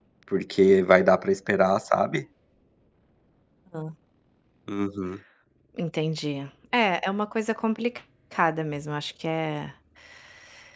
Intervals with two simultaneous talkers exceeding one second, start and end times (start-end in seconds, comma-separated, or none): none